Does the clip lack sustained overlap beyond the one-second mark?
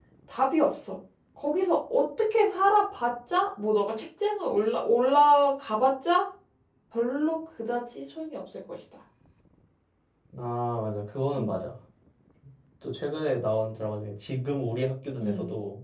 Yes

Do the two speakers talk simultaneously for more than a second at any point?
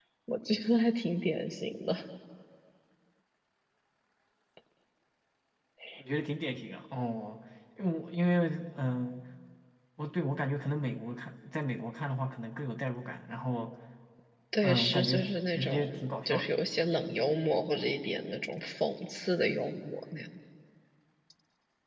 Yes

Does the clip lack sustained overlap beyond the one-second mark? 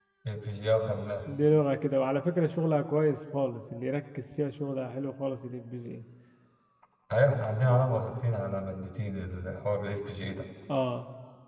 Yes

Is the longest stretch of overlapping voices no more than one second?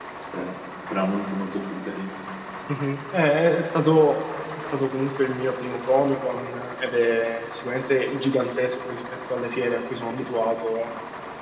Yes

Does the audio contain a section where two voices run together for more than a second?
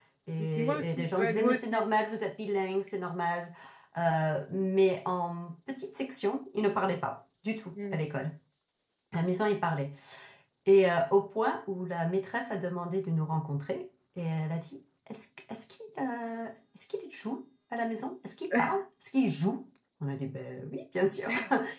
Yes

